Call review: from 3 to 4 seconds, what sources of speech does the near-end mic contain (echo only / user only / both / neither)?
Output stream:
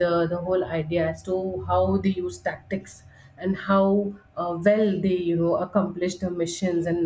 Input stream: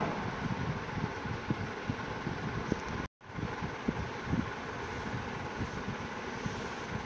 neither